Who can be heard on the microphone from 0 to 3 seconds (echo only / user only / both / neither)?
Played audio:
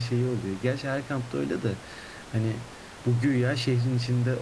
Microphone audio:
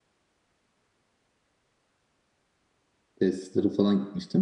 neither